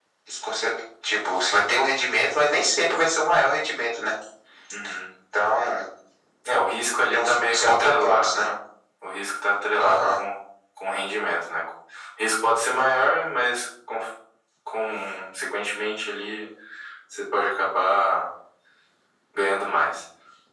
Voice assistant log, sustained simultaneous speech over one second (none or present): present